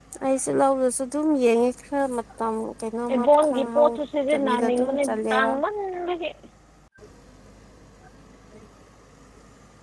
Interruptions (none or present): present